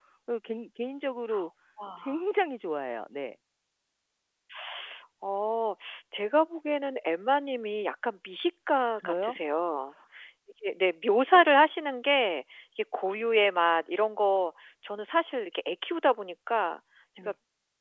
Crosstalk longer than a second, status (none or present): none